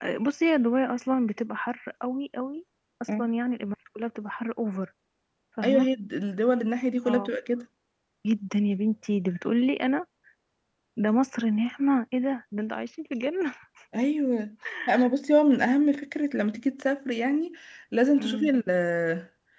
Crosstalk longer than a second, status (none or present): none